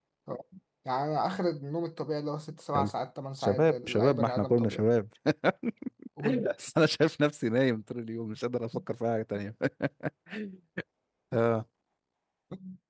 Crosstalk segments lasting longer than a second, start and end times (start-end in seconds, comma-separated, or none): 3.4-4.8